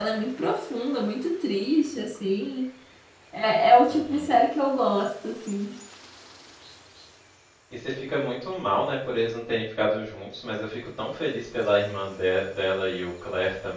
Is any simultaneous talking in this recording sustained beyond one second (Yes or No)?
No